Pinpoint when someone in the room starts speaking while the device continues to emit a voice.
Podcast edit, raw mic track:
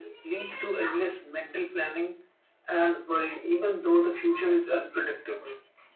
none

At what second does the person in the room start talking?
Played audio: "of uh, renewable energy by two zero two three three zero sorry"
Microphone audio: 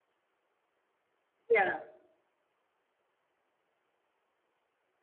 1.5 s

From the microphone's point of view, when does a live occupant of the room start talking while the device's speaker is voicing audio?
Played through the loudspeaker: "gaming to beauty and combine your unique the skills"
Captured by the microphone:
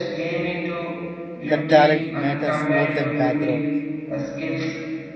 1.5 s

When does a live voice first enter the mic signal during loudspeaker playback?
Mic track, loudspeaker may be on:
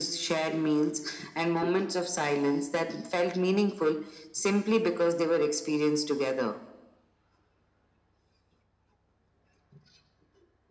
none

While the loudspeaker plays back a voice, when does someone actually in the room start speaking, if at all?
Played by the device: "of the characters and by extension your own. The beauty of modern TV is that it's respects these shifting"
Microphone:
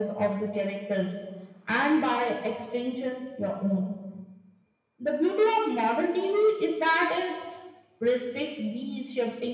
none

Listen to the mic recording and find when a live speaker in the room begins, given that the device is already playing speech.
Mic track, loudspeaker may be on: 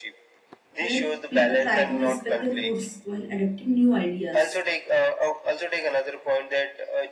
0.8 s

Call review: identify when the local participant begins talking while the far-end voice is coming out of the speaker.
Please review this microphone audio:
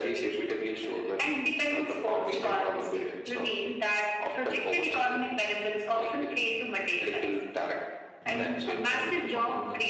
8.2 s

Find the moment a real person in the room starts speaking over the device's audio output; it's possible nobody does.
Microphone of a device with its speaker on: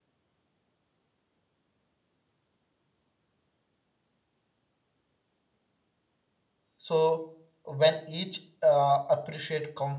6.8 s

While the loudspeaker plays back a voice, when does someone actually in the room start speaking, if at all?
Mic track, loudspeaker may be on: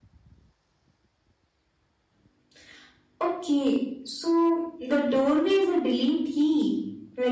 none

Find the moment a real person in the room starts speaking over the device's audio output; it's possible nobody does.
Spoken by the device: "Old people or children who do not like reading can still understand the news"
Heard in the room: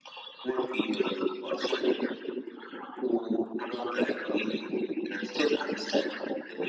none

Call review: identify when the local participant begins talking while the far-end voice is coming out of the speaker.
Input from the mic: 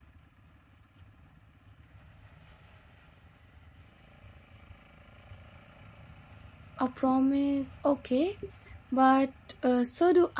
6.8 s

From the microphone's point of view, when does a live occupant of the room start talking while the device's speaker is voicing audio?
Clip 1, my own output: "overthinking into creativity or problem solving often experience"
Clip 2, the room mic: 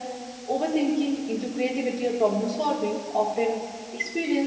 none

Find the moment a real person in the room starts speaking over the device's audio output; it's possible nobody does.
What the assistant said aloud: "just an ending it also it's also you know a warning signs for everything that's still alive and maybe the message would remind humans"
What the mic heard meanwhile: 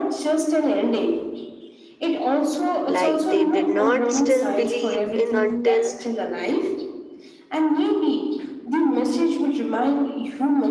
2.8 s

